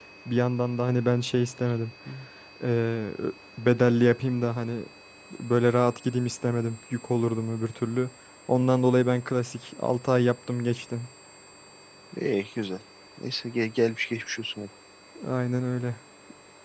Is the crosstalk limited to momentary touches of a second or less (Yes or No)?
Yes